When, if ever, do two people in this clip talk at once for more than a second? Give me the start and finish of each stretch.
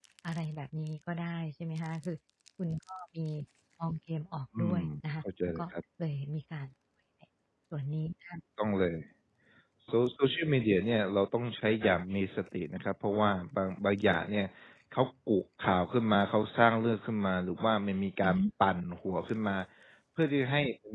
none

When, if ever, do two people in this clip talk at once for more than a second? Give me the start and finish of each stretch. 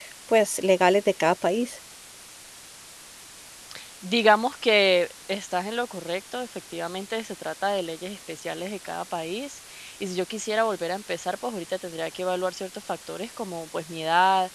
none

